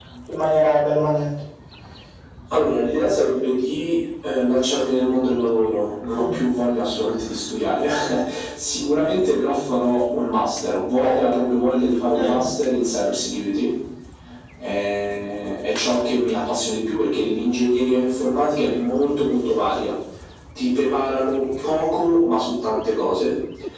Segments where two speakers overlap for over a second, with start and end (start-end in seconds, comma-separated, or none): none